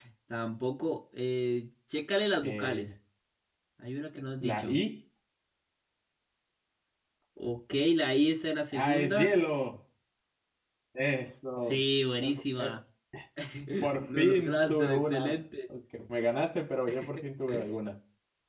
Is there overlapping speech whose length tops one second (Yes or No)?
Yes